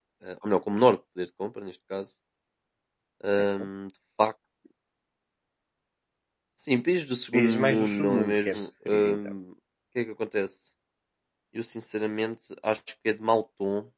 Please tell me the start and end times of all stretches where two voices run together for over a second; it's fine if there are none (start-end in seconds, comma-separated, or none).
7.3-9.3